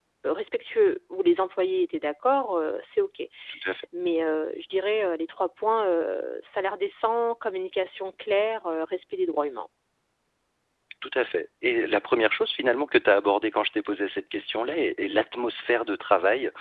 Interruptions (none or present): none